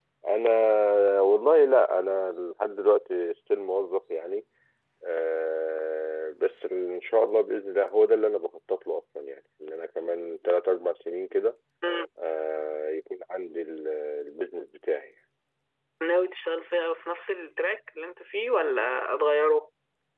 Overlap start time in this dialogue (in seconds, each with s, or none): none